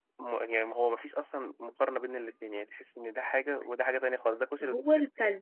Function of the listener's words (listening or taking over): taking over